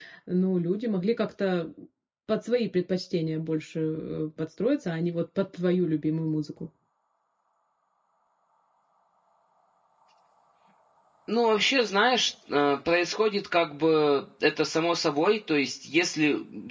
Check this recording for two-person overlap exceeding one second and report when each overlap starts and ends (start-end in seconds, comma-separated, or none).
none